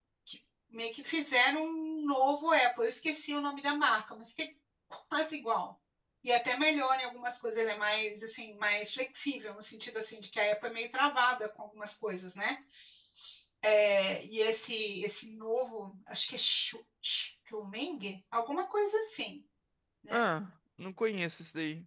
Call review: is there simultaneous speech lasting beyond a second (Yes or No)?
No